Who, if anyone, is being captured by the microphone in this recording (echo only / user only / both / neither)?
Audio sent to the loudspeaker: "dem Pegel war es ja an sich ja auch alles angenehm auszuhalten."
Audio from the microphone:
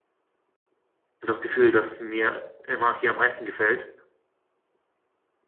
user only